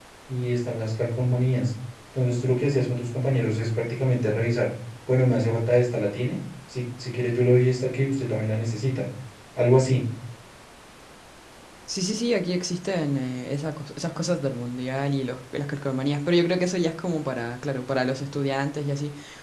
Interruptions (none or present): none